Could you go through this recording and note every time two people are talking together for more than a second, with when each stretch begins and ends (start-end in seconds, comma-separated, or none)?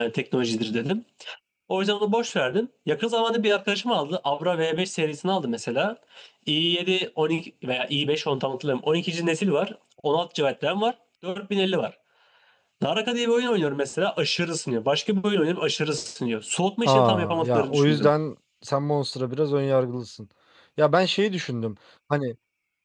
16.8-18.1